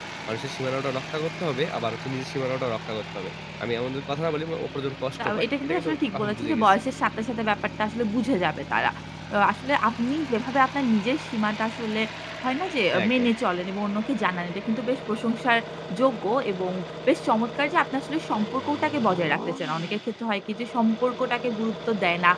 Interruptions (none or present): present